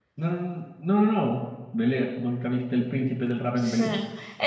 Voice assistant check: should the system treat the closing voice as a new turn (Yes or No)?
Yes